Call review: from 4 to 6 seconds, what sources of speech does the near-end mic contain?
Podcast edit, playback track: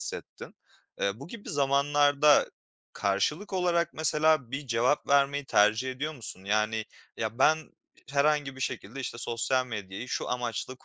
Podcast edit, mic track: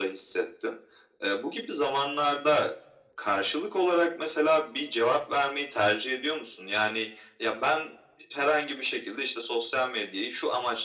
echo only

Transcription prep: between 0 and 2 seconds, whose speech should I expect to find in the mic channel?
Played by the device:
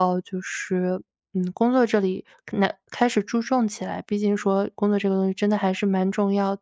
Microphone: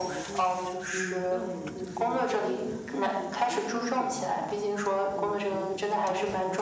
both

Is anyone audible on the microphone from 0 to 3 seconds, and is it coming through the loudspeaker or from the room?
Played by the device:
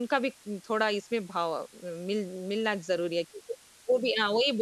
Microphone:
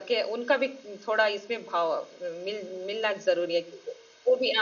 echo only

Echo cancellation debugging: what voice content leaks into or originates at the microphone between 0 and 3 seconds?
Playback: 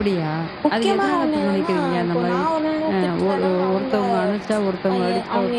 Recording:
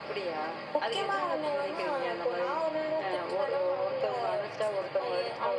echo only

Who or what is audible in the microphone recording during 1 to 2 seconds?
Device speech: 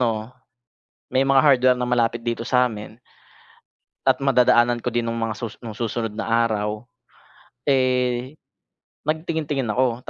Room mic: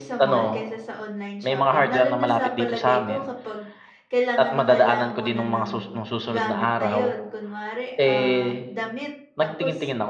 both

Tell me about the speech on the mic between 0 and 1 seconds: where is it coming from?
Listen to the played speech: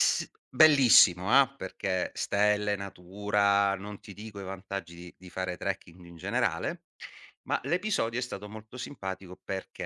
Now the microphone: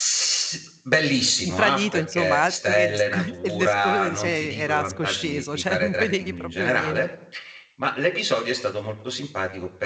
echo only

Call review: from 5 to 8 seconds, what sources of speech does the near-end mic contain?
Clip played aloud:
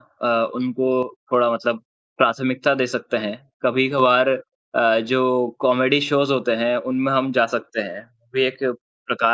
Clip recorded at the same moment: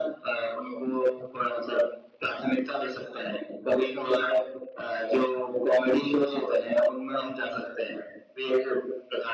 echo only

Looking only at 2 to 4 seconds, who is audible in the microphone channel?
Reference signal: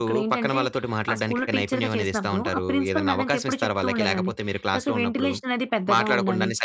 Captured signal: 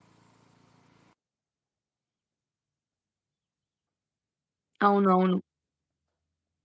neither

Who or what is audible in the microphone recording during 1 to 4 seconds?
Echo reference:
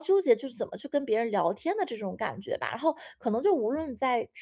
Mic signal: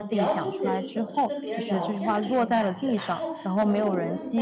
both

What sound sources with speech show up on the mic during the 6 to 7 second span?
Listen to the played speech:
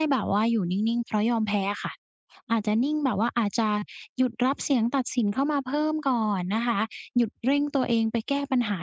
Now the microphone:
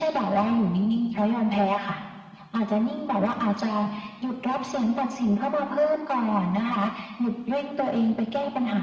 echo only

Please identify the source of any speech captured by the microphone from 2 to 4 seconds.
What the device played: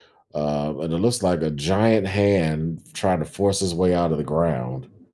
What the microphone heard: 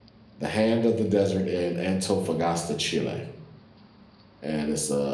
user only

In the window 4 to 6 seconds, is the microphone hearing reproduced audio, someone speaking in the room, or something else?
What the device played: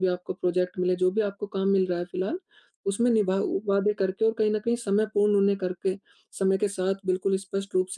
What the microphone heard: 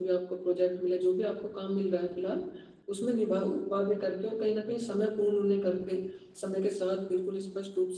echo only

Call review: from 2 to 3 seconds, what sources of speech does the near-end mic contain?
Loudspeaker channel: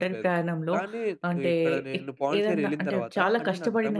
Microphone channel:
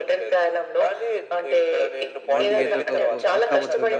both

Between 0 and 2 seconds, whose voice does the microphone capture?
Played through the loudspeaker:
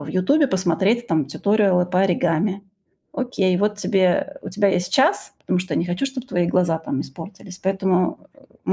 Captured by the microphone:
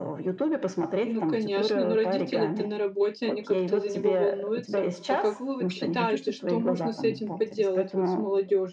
both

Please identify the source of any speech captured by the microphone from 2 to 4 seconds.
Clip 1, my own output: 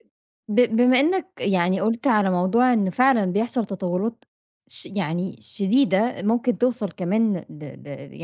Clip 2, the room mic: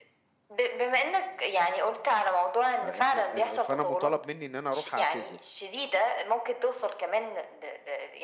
both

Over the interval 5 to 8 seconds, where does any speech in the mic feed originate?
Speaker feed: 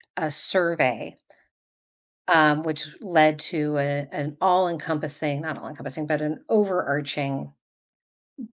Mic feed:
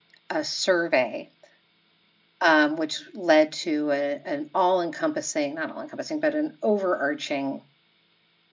echo only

